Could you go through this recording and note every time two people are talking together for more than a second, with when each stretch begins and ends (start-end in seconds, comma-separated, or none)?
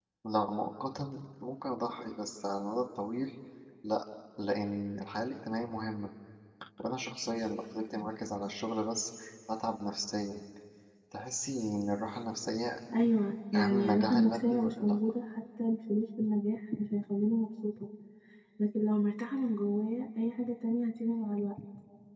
13.6-14.9